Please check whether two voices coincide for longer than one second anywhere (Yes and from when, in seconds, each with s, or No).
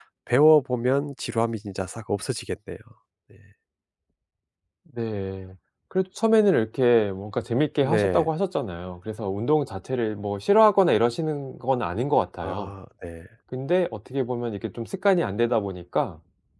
No